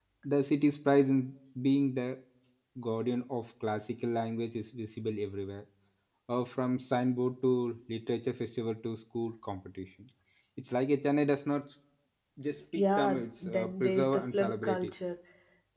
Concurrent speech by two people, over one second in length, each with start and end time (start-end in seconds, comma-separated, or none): 12.8-14.9